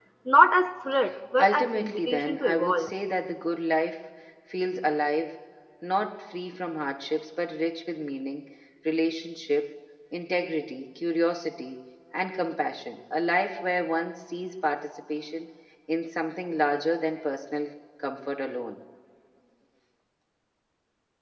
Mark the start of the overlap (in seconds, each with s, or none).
1.4 s